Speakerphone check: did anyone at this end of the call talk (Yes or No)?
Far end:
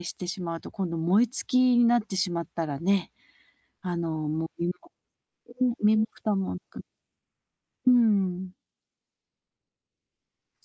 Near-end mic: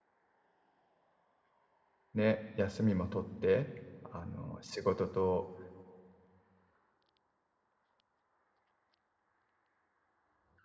Yes